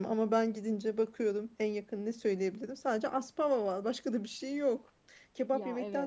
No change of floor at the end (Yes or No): Yes